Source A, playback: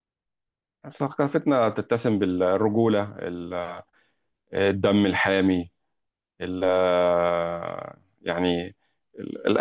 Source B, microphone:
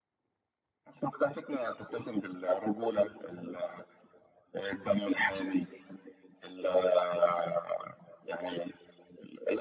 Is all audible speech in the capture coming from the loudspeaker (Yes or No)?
Yes